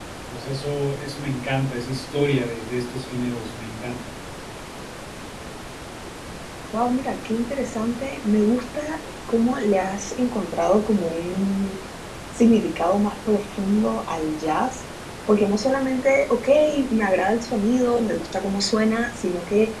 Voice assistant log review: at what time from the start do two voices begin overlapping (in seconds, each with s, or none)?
none